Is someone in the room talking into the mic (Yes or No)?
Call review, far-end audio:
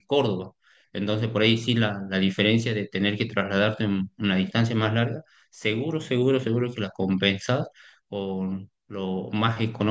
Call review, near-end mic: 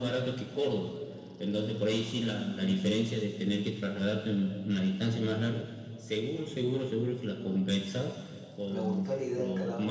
Yes